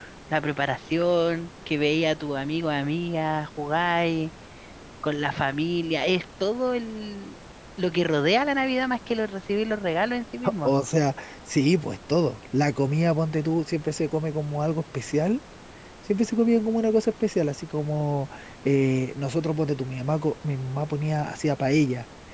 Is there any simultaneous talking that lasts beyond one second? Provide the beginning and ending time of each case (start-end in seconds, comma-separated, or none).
none